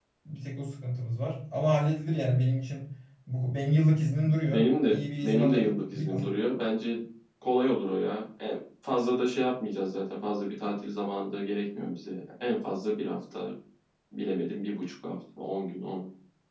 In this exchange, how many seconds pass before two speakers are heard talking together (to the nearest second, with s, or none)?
5 s